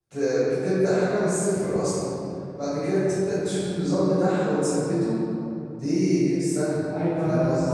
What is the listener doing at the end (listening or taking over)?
taking over